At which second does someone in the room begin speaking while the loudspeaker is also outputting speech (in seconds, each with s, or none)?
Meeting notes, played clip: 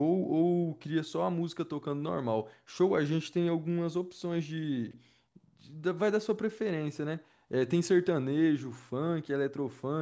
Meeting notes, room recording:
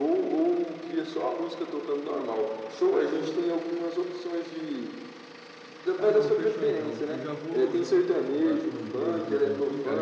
6.0 s